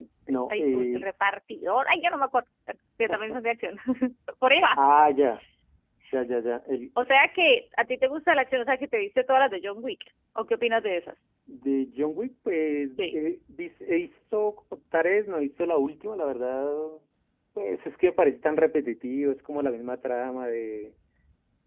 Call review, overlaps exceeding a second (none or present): none